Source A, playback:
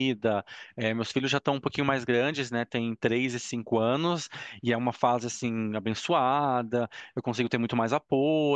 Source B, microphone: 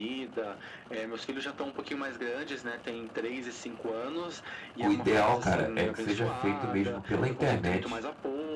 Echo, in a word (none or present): present